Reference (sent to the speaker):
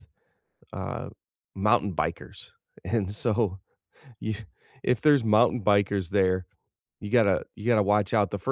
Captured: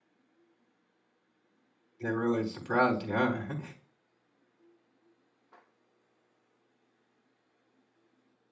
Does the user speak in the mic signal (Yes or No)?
Yes